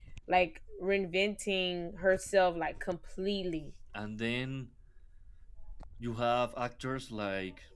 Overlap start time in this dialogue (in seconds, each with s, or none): none